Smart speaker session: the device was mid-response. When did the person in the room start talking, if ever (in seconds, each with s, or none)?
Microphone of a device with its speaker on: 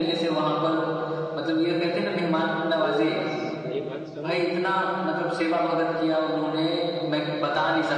2.8 s